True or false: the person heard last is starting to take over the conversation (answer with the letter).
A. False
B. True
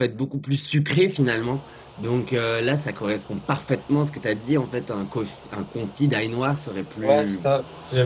B